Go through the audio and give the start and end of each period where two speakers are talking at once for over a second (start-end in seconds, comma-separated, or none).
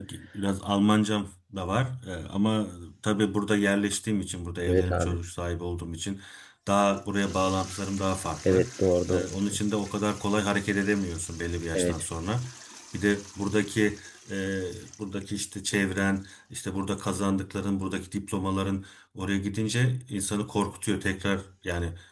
none